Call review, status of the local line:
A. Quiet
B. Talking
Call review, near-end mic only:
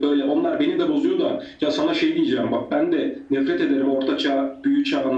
A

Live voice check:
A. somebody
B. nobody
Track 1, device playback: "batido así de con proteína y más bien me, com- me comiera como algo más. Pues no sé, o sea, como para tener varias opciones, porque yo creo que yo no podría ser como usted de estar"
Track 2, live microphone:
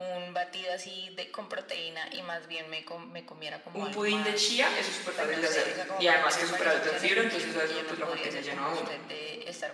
A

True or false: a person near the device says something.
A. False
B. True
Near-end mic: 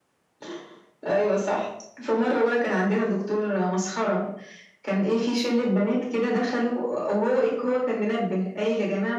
A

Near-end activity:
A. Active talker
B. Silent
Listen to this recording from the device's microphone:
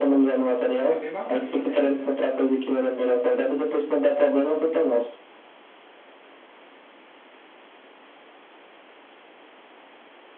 A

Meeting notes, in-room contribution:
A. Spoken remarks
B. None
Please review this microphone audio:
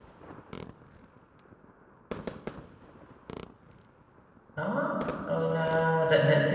A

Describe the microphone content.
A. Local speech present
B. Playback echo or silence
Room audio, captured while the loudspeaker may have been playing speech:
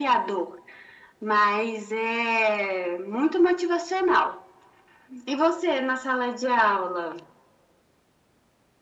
B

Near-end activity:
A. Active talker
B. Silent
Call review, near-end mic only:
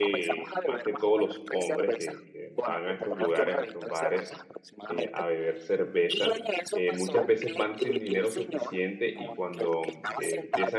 A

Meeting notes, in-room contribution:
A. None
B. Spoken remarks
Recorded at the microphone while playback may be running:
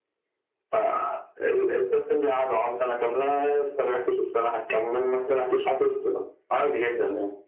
A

